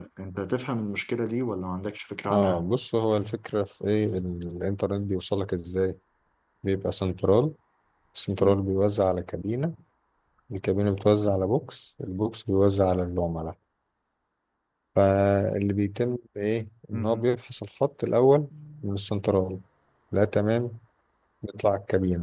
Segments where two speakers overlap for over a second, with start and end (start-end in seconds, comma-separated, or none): none